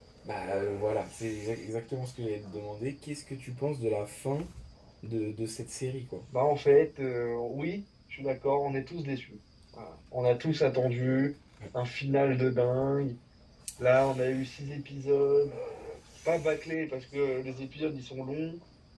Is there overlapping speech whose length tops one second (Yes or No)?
No